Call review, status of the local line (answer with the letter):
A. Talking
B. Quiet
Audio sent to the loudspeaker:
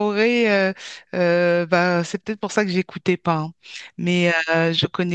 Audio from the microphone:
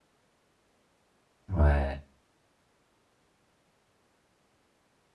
A